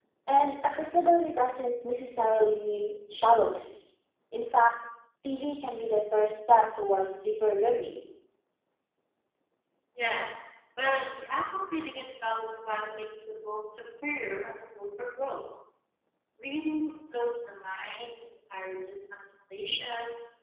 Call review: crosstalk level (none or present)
none